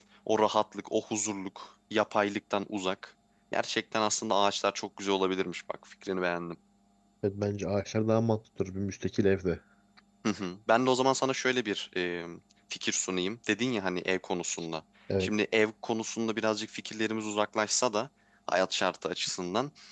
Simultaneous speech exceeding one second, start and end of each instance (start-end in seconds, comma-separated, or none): none